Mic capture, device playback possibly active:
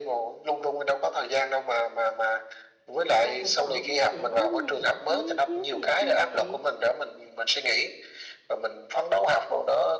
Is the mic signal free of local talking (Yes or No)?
No